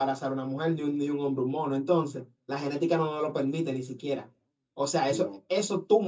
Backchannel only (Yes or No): Yes